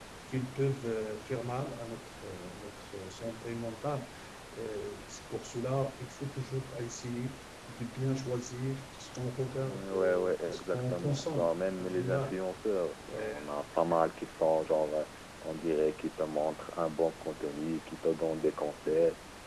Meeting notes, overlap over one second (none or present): present